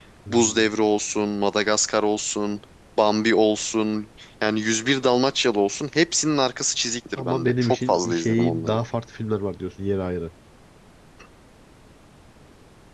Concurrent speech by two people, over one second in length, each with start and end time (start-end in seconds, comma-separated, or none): 7.2-8.8